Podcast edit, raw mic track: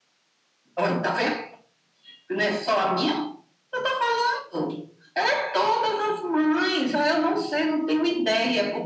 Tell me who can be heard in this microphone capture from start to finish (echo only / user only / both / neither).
echo only